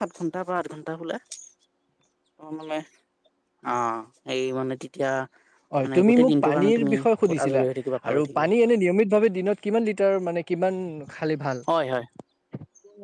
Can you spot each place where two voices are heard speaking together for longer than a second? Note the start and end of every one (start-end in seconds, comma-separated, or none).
5.8-7.6